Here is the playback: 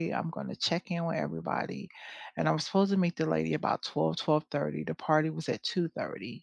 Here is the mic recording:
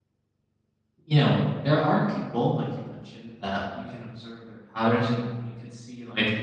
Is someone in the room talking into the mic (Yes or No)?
Yes